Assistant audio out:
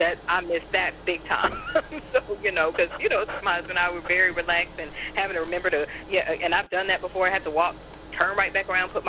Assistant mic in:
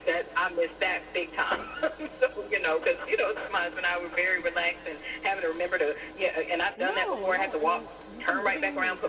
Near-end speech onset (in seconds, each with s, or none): 6.8 s